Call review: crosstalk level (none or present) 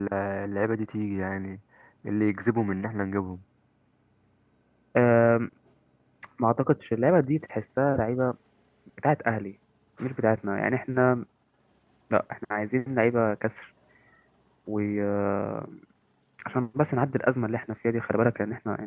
none